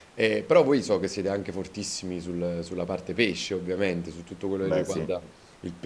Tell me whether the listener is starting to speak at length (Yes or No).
No